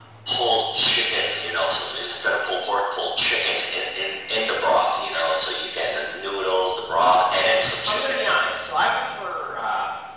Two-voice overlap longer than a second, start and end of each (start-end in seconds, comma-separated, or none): none